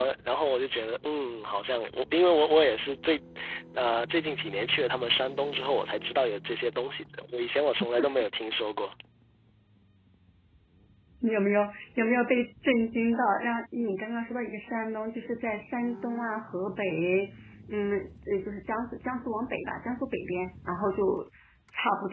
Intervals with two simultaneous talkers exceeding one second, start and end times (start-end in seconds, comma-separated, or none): none